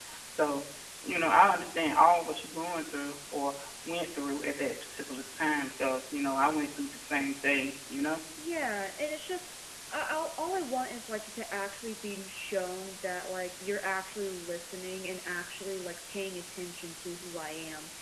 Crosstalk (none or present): none